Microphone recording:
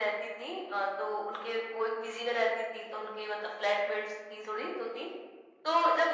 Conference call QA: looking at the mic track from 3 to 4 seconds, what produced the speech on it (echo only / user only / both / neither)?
echo only